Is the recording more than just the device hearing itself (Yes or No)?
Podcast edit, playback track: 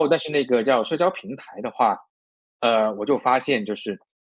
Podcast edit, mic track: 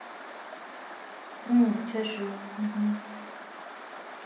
Yes